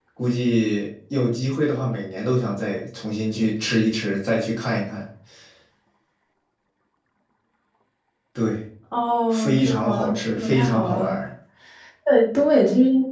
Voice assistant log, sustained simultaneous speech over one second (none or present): present